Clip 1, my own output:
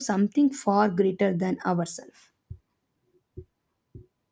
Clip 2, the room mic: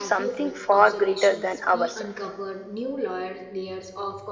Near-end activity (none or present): present